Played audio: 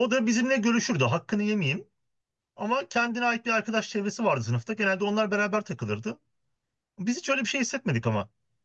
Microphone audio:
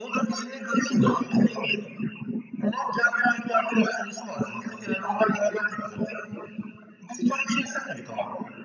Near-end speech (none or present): none